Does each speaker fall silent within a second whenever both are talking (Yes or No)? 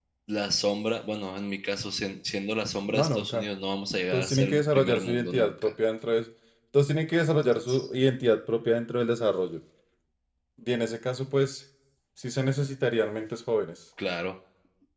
No